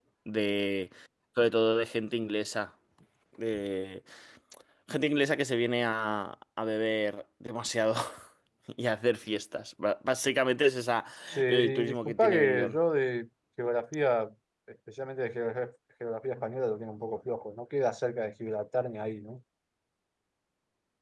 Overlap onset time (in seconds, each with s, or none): 11.5 s